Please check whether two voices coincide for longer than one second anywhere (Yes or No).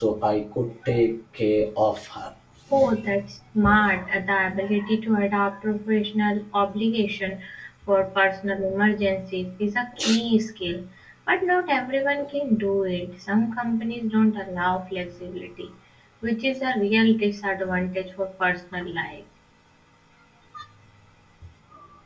No